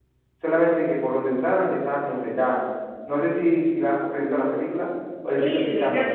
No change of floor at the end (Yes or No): No